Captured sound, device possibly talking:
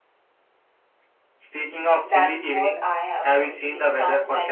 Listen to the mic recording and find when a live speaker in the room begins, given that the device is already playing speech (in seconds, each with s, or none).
2.0 s